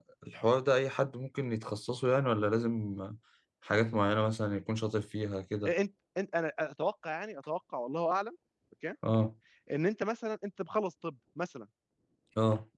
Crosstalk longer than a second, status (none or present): none